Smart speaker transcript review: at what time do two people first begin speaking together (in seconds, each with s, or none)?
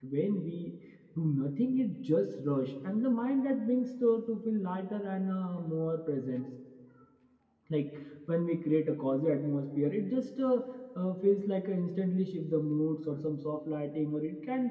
none